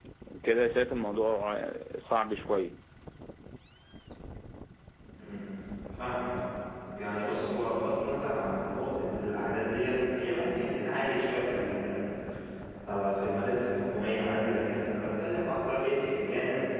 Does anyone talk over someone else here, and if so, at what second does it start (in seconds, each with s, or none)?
none